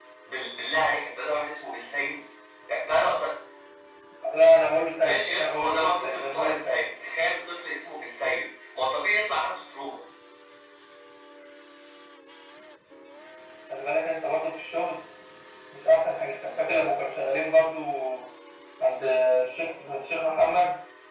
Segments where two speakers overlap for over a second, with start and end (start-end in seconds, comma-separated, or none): 5.0-6.8